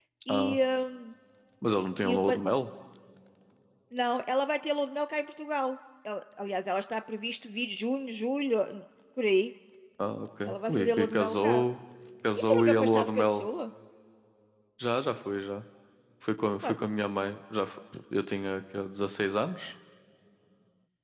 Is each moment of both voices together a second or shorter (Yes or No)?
No